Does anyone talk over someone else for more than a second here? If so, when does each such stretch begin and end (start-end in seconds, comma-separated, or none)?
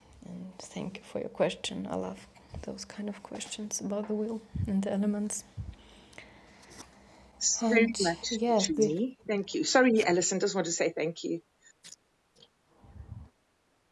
7.6-8.9